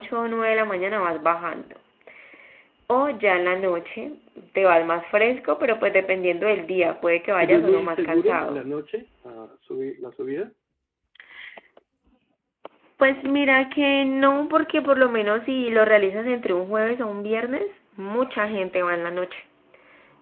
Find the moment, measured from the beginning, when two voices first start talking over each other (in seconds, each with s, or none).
7.4 s